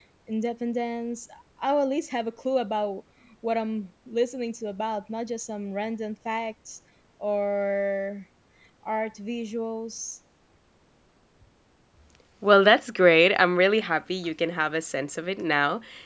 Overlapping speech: No

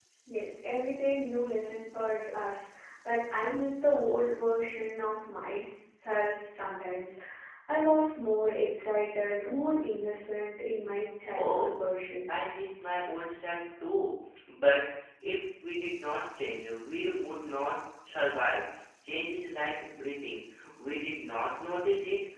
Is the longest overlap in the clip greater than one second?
No

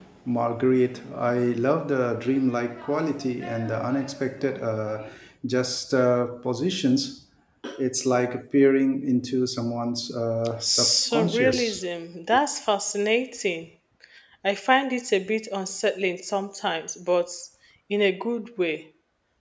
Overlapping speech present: Yes, from 10.6 s

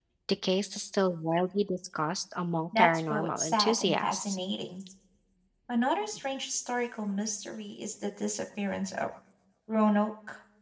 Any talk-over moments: Yes, from 2.7 s

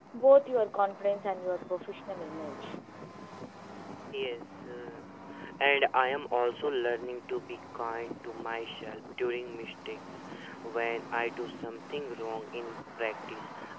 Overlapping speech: No

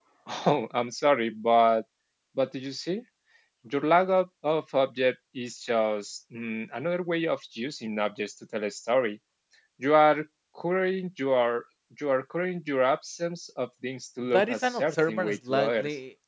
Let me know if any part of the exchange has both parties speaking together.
Yes, from 14.2 s

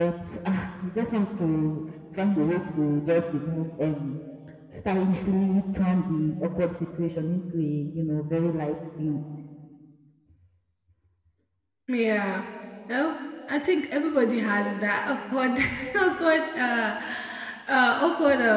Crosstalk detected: No

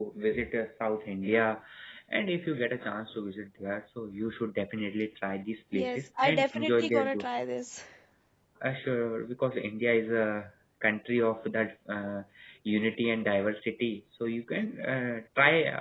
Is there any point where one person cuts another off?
Yes, from 5.7 s

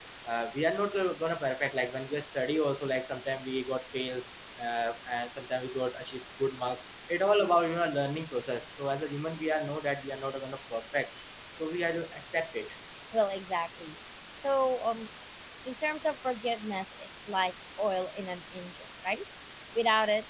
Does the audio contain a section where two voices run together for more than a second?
No

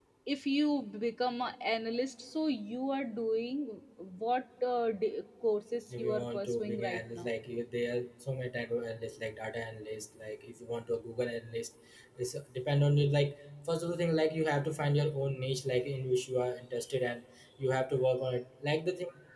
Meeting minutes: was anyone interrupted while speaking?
Yes, from 5.9 s

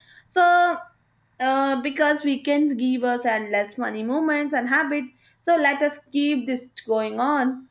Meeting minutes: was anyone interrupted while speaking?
No

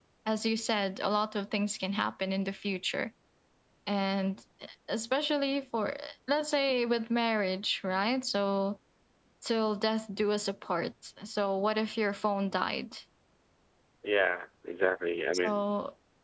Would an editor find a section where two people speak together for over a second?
No

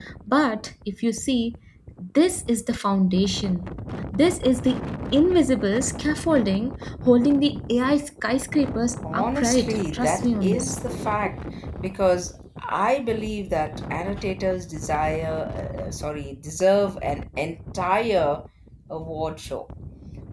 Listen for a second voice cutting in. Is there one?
Yes, from 9.0 s

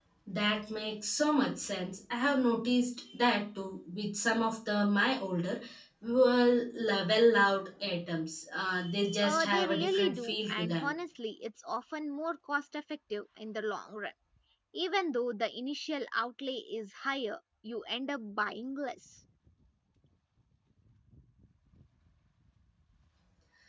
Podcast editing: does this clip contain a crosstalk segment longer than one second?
Yes, from 9.2 s

